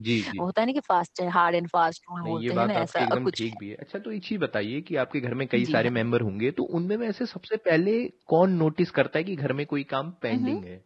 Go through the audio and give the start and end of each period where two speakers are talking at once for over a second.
2.2-3.6

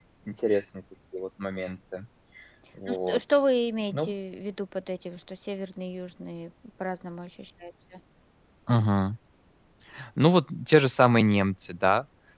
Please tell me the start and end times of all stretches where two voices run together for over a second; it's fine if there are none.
none

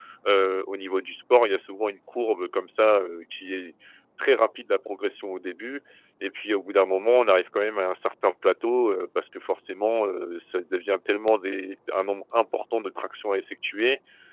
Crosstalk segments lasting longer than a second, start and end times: none

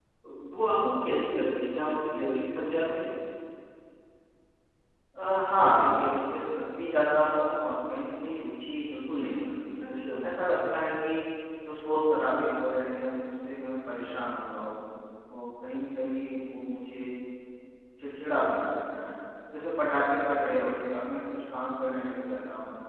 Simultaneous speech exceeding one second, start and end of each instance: none

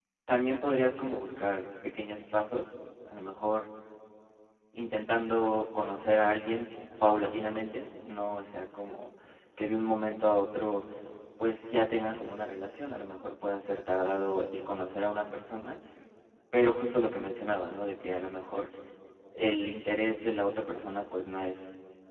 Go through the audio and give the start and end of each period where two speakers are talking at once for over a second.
none

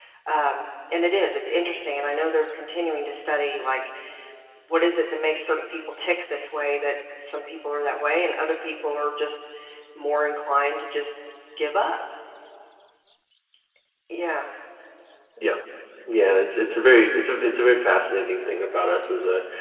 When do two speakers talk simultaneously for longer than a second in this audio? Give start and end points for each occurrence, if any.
none

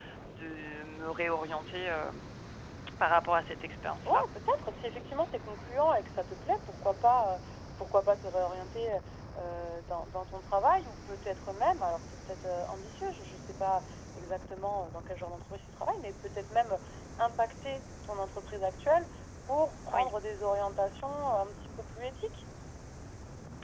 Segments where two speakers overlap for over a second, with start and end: none

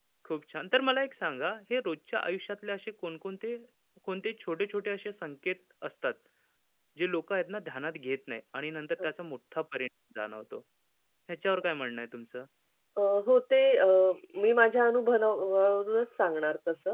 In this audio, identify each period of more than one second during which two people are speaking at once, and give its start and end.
none

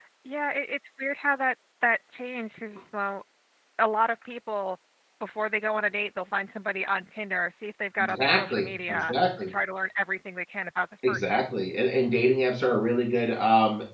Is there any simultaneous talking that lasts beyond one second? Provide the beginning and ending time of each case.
8.0-9.5

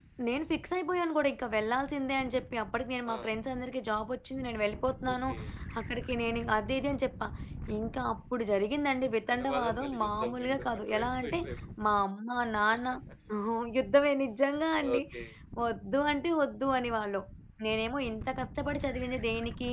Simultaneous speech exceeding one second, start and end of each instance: 9.3-11.3

